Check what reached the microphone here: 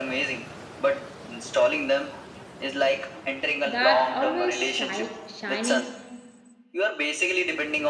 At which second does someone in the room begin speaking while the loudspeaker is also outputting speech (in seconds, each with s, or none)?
3.6 s